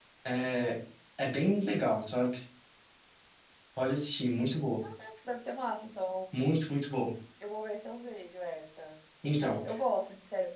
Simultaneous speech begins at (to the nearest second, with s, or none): none